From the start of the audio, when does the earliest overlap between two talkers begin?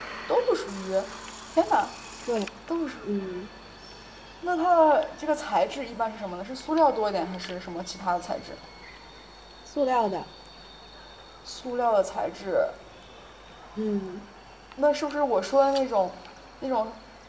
none

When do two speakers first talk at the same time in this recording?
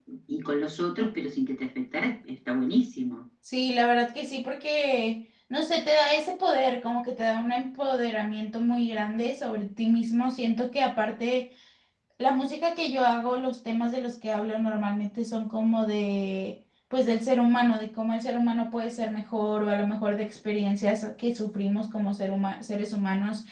none

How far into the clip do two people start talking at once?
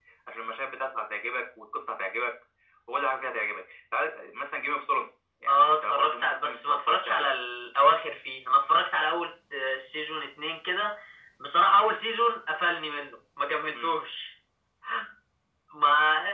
5 s

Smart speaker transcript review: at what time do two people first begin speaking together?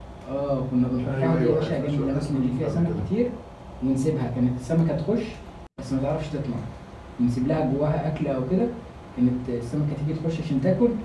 1 s

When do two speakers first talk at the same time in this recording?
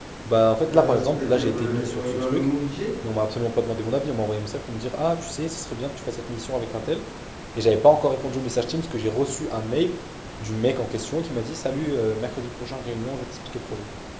1 s

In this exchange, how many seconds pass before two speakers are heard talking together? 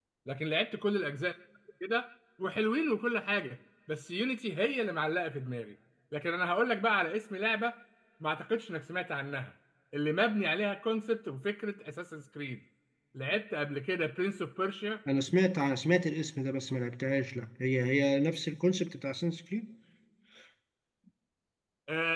none

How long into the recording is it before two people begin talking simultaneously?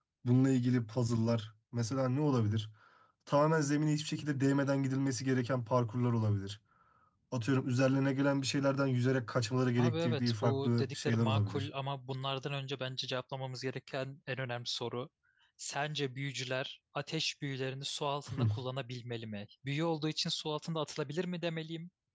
10 s

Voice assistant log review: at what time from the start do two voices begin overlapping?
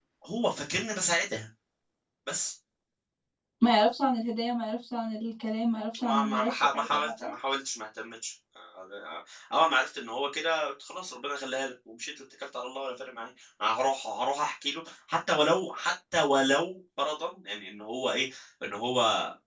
6 s

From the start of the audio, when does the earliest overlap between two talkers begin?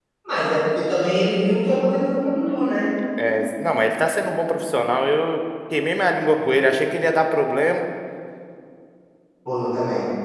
none

